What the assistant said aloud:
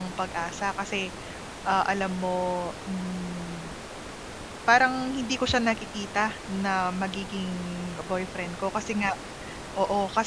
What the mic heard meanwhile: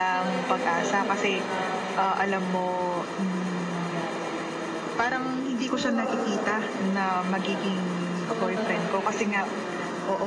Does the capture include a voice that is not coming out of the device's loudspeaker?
Yes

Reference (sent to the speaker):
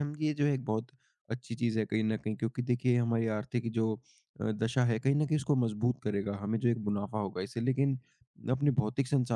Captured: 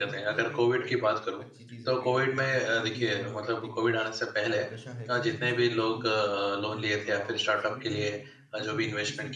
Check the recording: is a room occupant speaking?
Yes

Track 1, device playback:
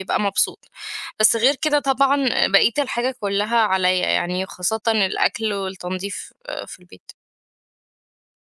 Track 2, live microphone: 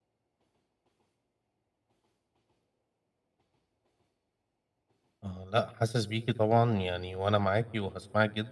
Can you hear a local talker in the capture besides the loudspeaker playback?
Yes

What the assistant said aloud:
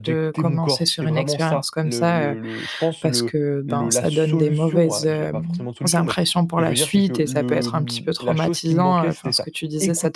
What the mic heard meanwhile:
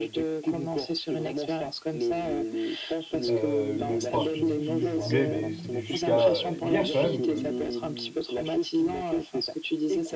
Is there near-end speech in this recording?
Yes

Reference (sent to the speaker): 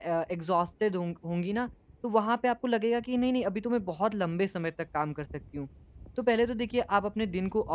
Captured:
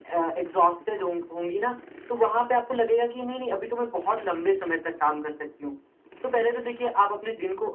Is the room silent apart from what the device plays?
Yes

